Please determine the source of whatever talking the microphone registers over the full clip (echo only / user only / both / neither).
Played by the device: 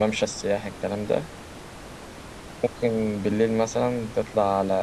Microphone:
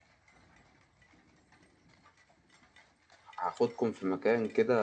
user only